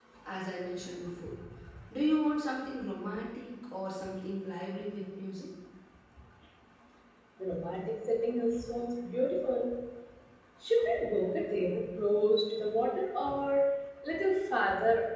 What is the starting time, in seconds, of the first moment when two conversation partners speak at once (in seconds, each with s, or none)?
none